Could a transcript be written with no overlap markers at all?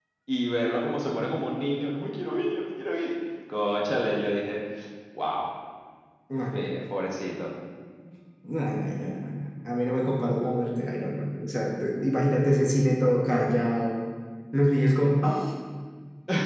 Yes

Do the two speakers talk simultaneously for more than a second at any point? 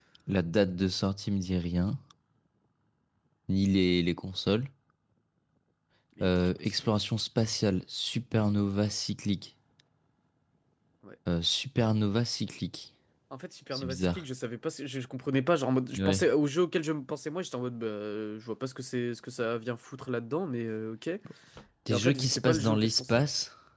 Yes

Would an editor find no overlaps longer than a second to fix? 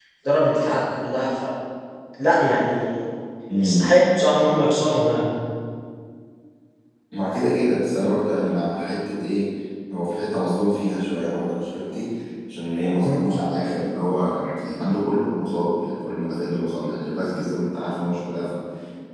Yes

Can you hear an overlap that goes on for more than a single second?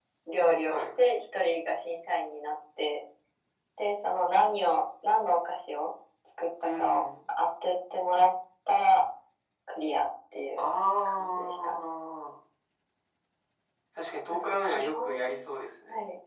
Yes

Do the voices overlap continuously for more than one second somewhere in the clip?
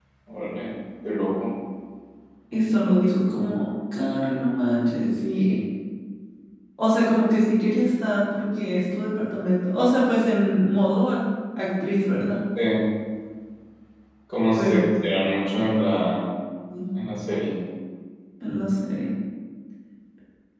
No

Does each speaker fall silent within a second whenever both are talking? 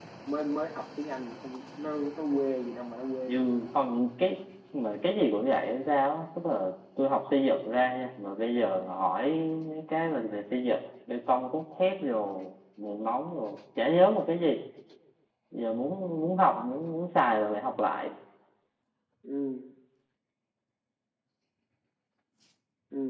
Yes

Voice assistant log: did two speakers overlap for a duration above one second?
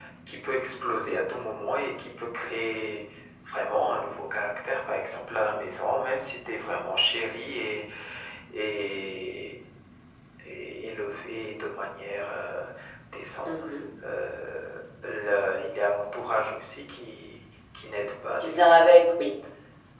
No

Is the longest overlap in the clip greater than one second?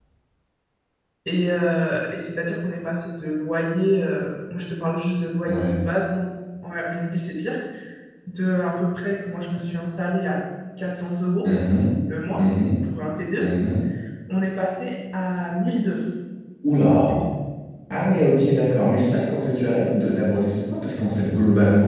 No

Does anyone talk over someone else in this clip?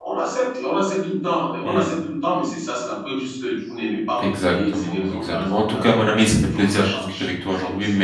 Yes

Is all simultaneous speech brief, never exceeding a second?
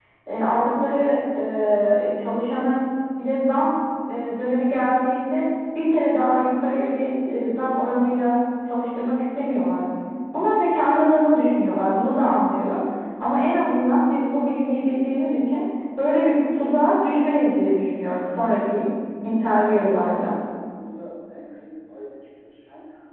Yes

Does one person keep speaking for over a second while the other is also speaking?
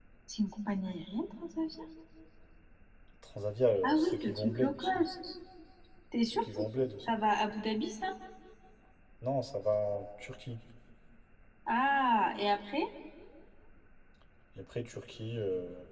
Yes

